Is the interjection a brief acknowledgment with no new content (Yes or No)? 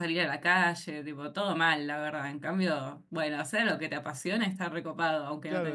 No